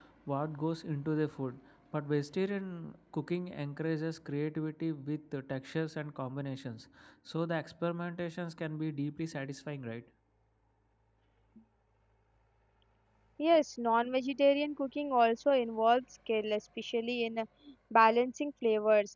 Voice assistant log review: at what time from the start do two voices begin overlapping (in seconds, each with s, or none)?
none